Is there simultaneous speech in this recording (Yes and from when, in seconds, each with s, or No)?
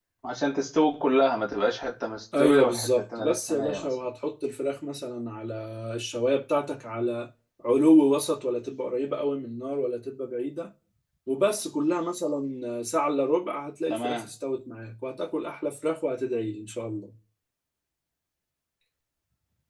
Yes, from 2.4 s